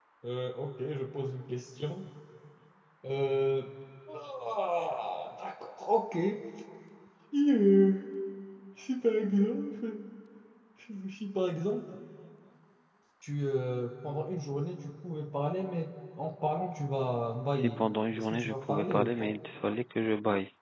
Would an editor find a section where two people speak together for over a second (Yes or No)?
Yes